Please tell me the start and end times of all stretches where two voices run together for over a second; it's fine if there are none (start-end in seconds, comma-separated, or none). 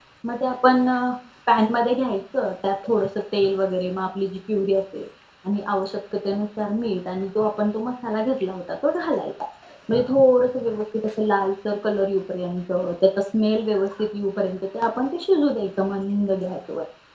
none